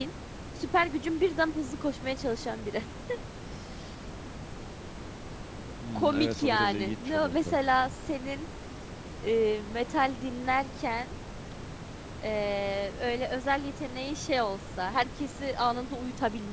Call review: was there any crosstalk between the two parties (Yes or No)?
Yes